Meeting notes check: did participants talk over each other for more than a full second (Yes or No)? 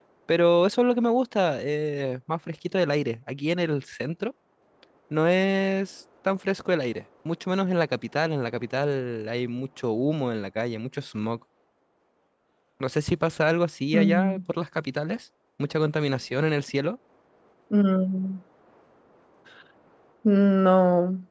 No